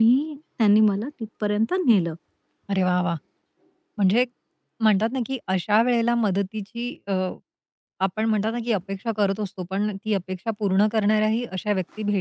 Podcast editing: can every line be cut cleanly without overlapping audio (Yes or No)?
Yes